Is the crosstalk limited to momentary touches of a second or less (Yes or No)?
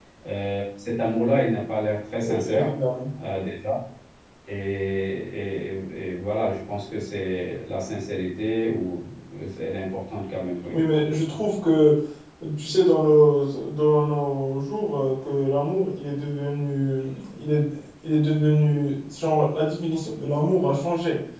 Yes